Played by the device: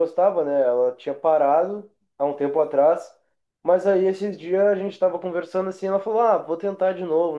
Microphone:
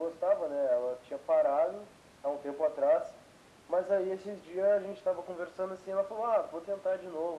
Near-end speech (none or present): none